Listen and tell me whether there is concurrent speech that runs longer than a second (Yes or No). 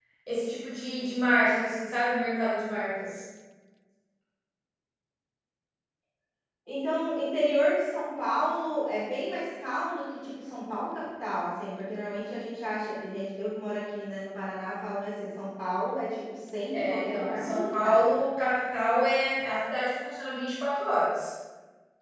Yes